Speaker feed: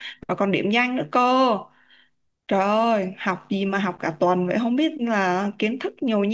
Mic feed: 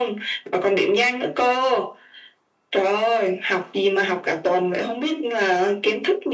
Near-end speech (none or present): none